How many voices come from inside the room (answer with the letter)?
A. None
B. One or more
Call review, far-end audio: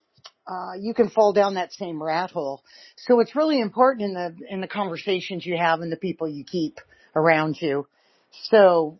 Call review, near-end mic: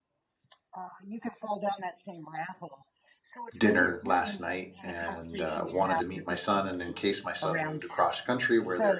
B